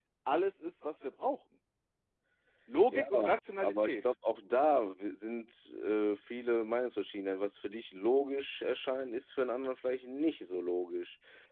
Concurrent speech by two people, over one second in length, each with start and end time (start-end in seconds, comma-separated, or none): none